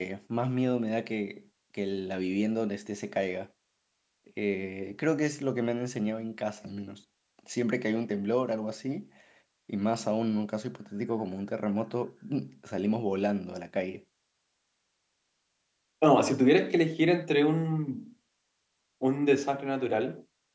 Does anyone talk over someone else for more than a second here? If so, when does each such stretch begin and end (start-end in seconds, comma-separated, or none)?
none